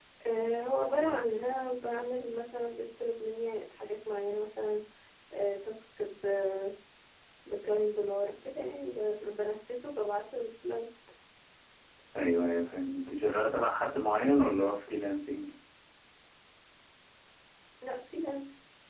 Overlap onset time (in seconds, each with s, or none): none